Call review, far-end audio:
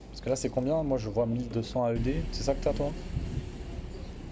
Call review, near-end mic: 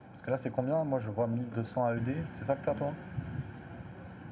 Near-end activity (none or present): none